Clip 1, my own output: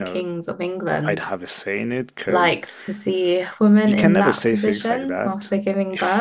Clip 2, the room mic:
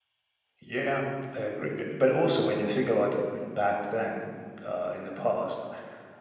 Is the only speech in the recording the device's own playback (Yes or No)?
No